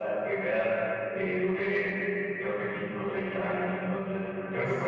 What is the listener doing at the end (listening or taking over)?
listening